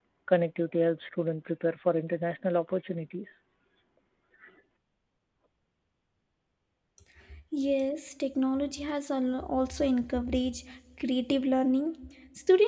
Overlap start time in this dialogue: none

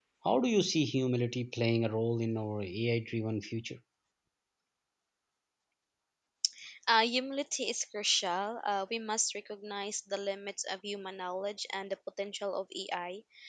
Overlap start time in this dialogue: none

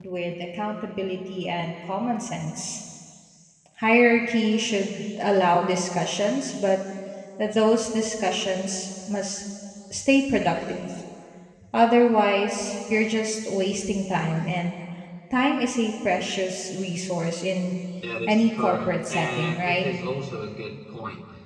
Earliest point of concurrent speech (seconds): 18 s

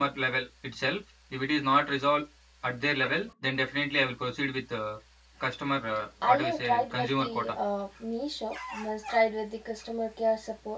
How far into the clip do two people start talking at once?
6 s

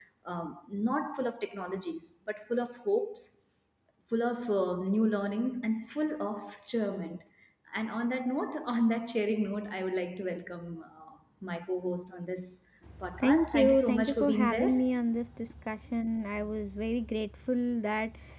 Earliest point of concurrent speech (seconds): 13 s

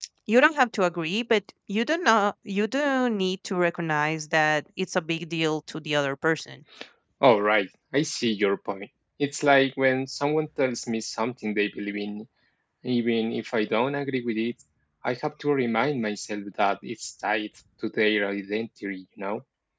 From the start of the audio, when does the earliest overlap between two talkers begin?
none

